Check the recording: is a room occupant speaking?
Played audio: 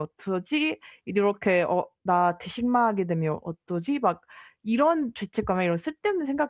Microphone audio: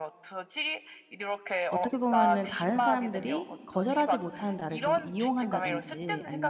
Yes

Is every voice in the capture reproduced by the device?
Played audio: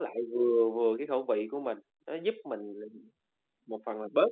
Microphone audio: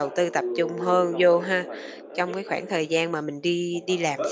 No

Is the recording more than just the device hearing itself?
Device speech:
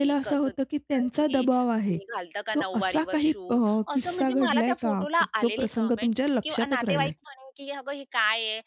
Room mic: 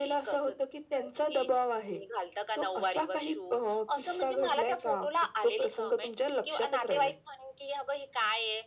No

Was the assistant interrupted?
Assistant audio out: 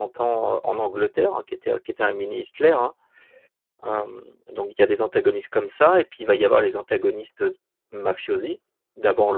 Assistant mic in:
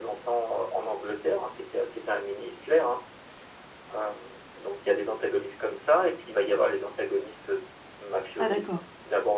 Yes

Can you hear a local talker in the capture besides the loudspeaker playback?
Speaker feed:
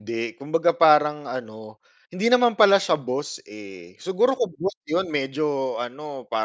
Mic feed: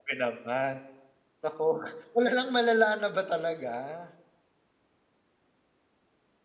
Yes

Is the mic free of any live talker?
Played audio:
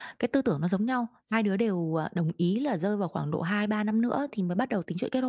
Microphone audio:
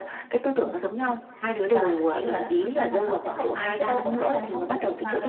No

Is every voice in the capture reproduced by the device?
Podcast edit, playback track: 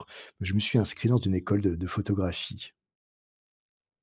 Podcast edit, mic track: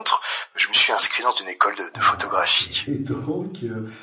No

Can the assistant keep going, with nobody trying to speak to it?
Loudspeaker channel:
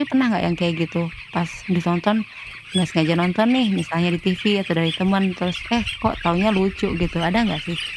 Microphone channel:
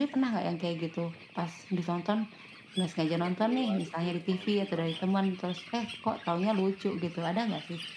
No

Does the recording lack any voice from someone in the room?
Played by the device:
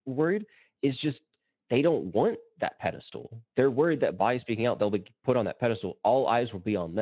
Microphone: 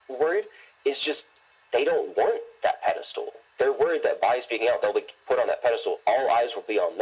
Yes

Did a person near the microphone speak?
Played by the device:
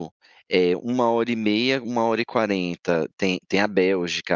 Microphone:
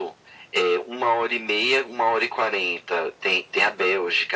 No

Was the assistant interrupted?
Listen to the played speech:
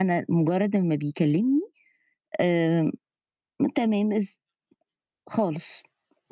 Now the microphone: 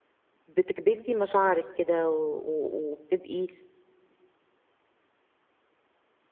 Yes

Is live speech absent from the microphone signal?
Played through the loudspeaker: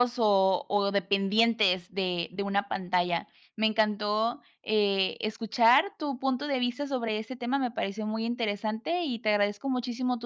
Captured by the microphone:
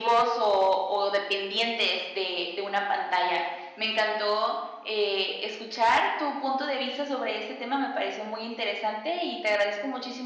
Yes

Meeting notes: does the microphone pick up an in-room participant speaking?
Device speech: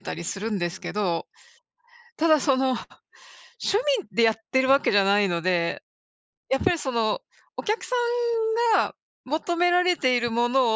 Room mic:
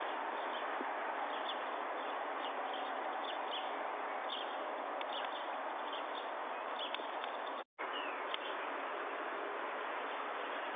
No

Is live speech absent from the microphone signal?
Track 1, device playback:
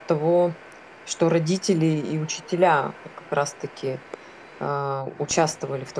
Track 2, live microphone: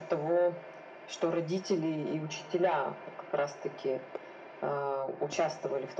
Yes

